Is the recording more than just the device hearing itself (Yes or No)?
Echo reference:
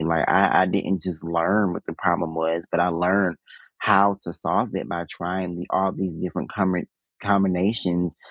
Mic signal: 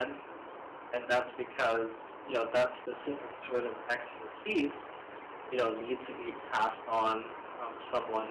Yes